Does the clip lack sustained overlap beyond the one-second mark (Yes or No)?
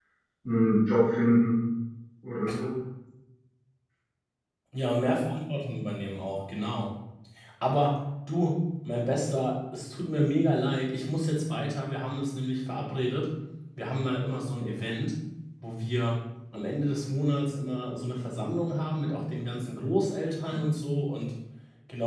Yes